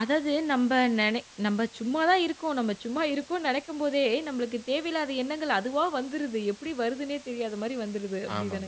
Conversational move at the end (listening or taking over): taking over